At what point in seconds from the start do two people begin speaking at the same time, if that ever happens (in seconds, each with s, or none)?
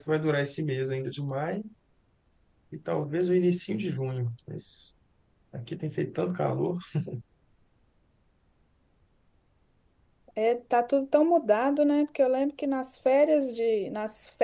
none